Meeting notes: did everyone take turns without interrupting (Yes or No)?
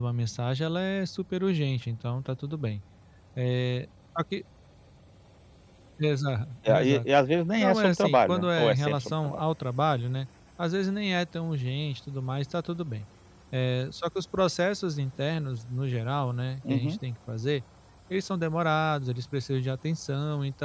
No